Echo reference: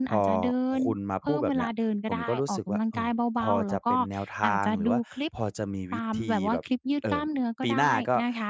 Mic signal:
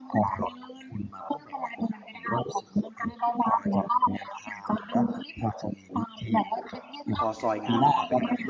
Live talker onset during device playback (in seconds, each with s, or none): 7.2 s